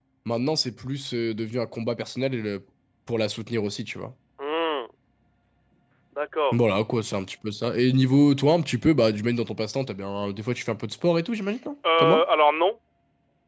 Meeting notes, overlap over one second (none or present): none